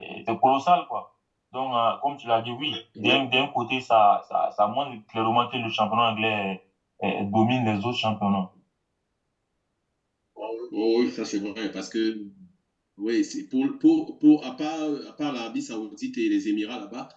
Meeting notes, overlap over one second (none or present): none